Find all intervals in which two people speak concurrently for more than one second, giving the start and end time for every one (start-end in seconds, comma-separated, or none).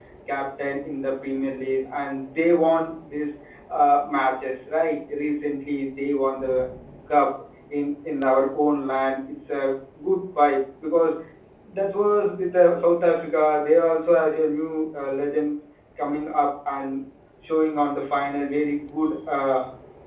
none